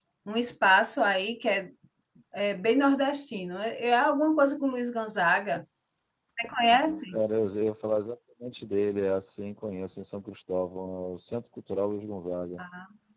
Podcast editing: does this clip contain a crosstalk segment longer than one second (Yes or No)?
No